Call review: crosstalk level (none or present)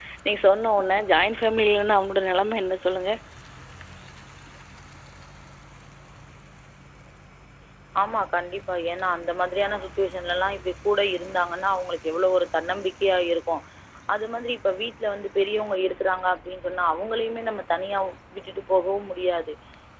none